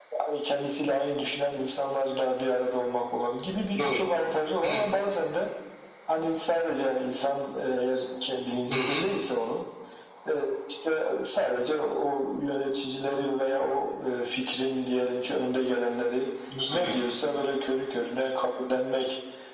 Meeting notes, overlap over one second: none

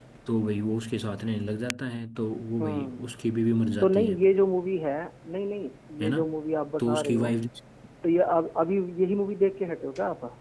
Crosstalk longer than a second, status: none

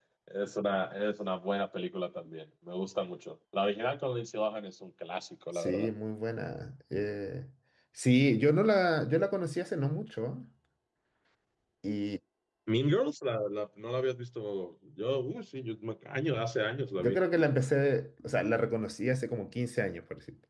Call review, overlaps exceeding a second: none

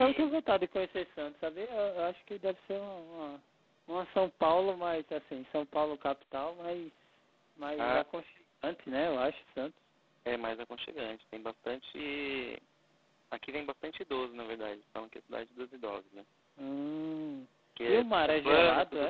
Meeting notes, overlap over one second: present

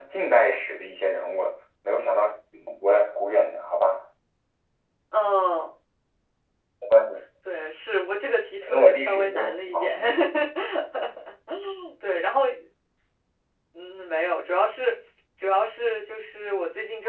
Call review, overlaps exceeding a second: present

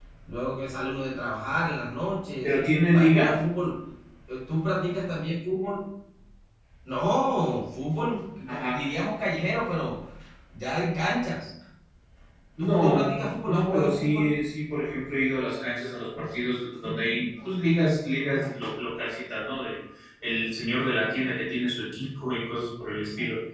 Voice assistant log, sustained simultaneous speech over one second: present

